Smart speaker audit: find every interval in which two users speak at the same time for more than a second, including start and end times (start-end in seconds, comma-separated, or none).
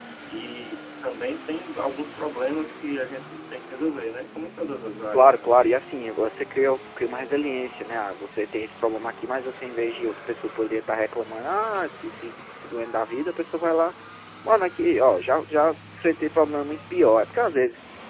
none